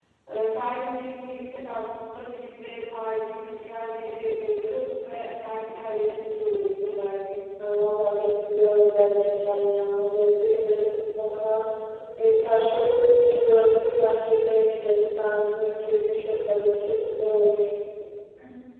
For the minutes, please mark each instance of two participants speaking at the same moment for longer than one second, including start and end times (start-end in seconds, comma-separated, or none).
none